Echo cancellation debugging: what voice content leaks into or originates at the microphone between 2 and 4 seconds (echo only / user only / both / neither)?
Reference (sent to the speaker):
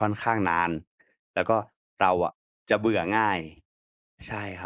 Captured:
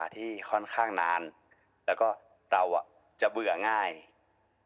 echo only